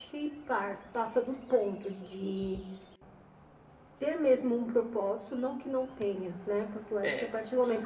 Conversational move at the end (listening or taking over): listening